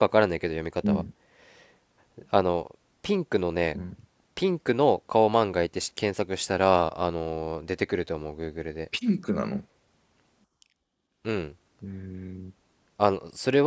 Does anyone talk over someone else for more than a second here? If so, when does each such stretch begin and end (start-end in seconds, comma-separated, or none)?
none